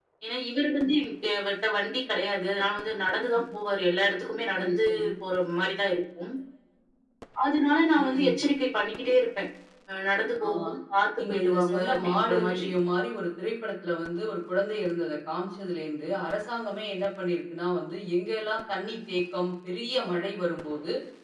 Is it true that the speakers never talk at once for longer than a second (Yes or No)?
No